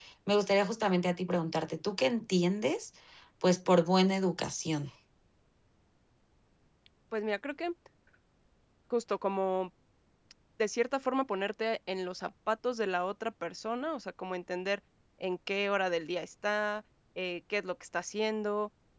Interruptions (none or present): none